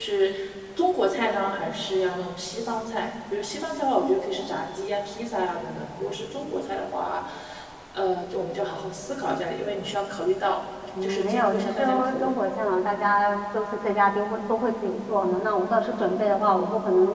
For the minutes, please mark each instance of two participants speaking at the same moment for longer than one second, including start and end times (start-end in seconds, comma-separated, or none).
11.0-12.3